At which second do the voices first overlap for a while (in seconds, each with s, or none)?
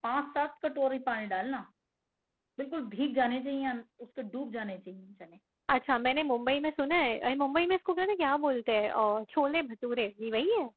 none